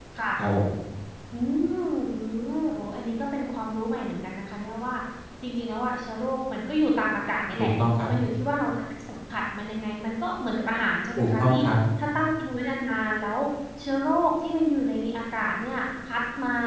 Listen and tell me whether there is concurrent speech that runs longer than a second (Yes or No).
No